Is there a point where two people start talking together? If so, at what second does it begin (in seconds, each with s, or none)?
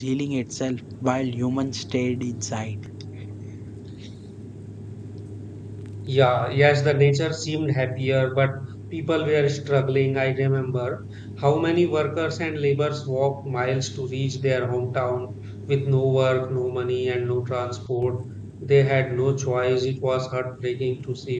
none